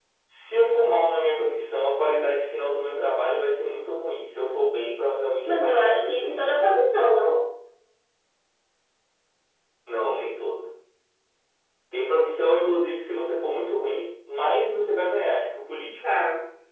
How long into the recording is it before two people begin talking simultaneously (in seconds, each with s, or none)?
5.5 s